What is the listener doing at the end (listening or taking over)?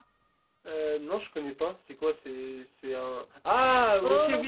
listening